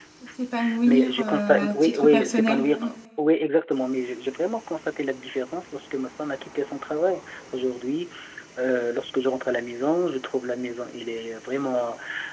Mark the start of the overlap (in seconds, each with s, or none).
0.9 s